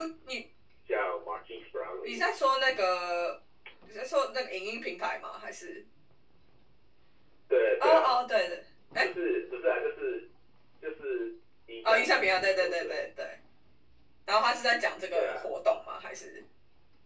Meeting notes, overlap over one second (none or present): present